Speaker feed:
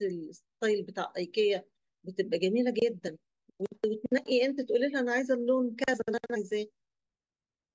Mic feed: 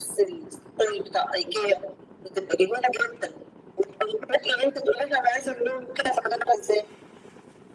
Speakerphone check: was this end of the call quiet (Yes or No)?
Yes